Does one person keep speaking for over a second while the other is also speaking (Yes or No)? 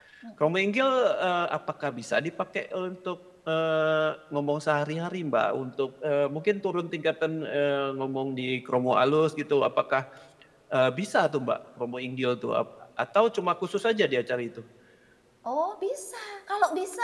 No